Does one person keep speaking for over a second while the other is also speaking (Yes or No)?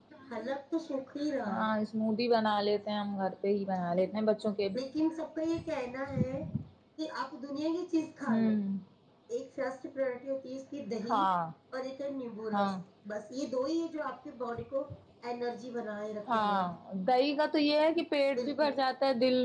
No